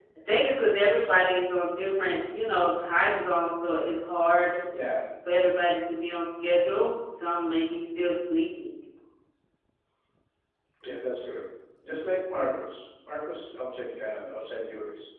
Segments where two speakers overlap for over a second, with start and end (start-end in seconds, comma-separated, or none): none